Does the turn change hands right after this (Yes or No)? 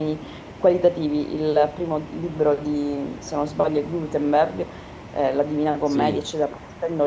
No